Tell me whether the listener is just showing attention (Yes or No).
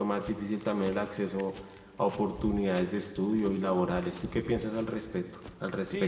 No